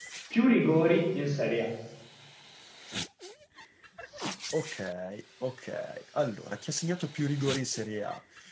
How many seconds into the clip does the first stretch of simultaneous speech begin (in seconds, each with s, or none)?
none